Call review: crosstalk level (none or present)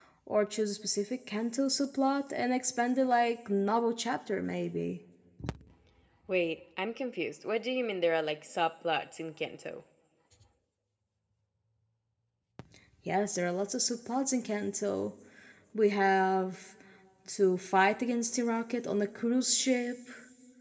none